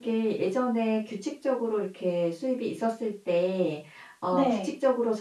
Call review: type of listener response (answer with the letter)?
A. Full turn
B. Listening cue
B